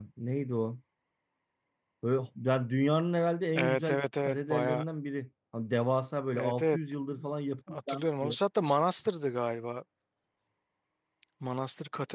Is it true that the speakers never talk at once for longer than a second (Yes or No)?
No